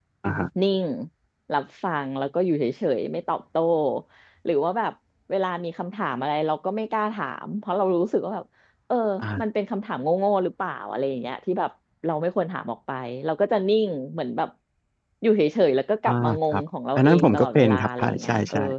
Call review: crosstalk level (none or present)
present